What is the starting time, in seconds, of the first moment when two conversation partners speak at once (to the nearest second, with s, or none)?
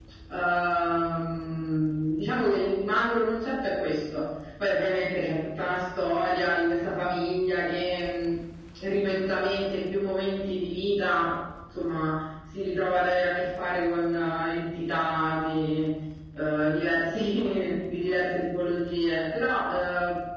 none